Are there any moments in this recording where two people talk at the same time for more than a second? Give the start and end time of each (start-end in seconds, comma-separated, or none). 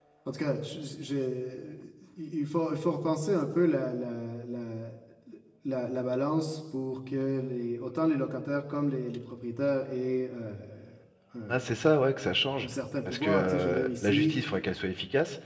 13.1-14.3